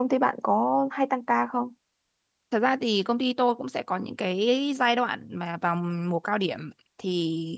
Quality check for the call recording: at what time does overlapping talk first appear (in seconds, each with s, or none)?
none